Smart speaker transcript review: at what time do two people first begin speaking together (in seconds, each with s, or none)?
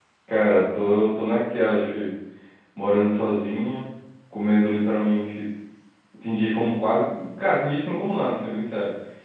none